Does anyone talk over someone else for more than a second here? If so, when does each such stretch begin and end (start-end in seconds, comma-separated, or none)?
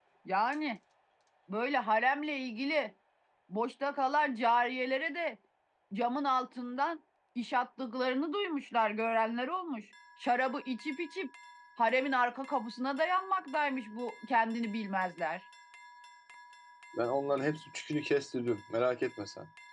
none